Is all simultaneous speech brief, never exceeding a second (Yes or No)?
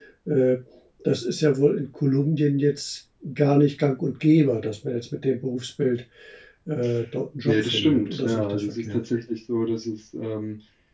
No